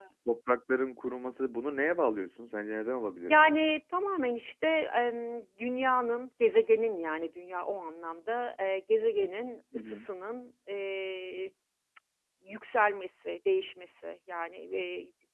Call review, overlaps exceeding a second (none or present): none